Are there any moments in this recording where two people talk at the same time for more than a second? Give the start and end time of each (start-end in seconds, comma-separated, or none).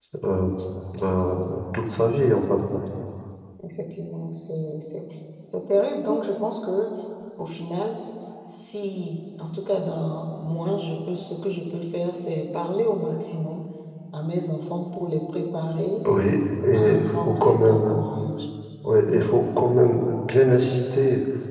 16.7-18.0